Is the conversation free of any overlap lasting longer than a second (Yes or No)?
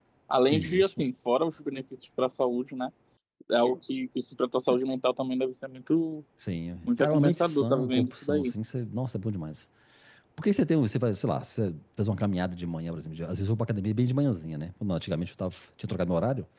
No